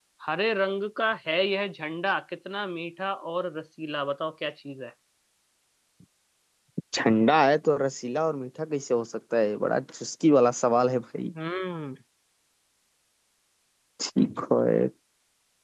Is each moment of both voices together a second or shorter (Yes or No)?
Yes